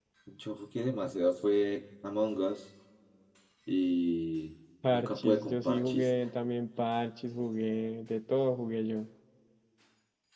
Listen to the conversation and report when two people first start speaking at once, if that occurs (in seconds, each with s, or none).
4.8 s